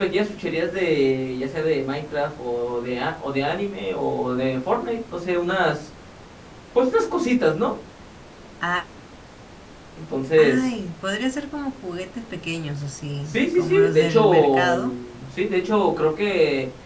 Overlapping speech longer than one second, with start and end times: 13.3-14.7

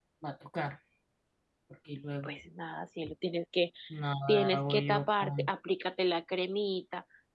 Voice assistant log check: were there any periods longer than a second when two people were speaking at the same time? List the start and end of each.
4.3-5.5

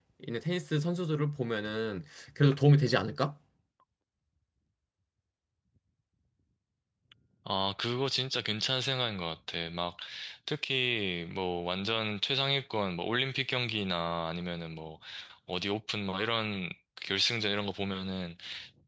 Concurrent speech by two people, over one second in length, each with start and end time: none

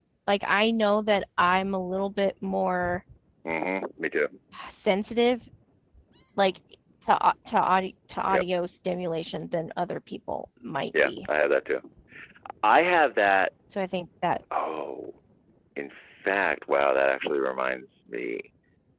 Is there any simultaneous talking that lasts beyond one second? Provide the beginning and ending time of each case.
none

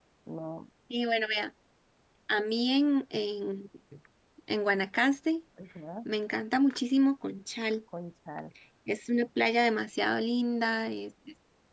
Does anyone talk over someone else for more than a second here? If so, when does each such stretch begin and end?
none

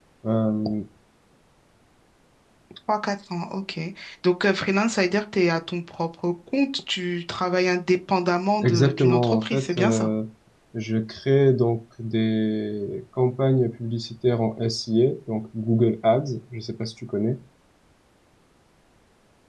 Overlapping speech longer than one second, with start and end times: 8.6-10.1

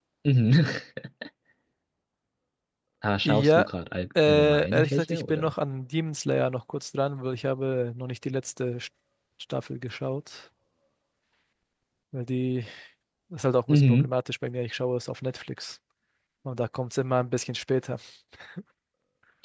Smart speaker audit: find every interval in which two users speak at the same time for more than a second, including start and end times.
4.3-5.5

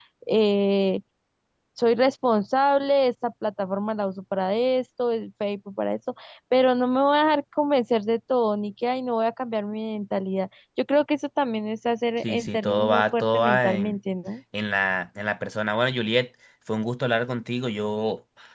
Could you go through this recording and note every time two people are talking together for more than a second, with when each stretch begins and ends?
12.2-14.0

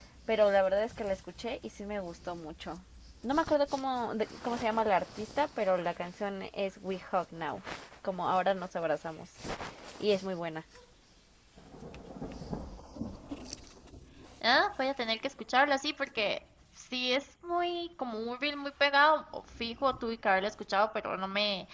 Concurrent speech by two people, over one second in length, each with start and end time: none

